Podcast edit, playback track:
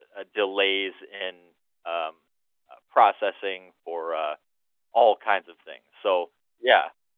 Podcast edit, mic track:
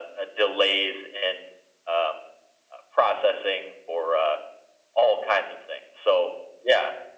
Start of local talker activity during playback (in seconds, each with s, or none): none